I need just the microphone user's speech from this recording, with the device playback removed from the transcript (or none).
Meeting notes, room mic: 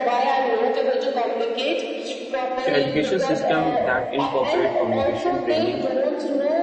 so education system that incorporate communication training